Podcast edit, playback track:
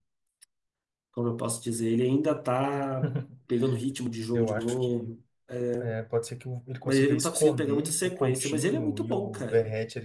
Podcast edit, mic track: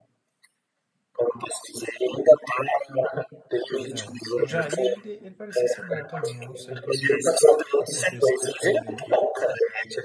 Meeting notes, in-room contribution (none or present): present